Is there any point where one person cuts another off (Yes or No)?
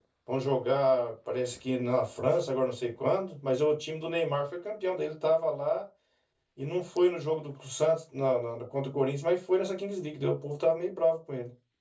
No